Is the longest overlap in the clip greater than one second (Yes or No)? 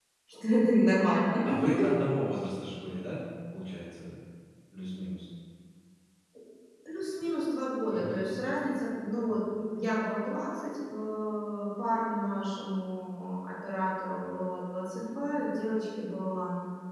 No